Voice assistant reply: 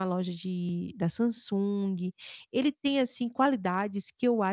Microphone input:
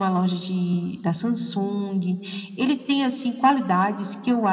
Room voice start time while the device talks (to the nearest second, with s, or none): none